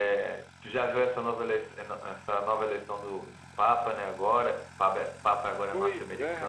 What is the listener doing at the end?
taking over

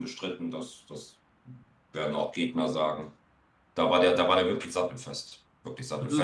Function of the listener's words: listening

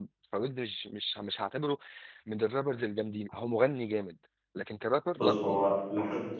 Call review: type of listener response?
taking over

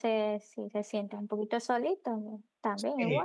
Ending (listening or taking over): taking over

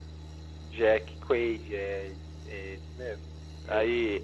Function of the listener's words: taking over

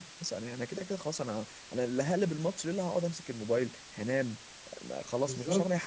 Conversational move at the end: taking over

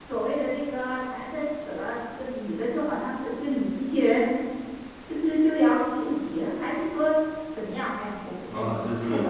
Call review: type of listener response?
taking over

